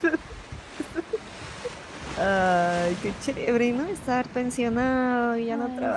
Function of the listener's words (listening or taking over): listening